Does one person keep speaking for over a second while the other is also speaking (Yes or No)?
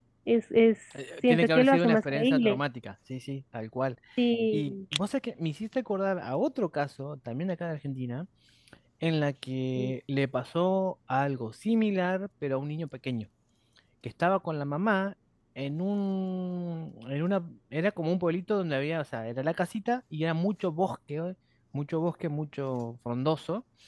Yes